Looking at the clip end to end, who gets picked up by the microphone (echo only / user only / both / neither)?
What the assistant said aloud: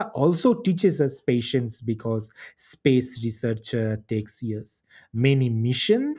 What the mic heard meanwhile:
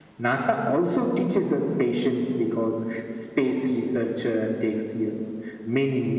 echo only